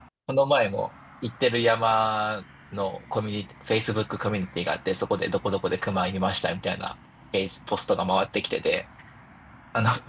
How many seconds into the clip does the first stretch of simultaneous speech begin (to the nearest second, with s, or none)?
none